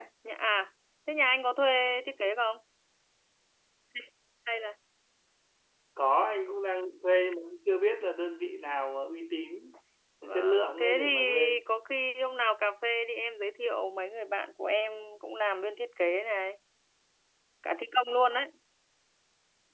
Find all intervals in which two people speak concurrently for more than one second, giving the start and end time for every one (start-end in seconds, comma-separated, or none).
10.3-11.5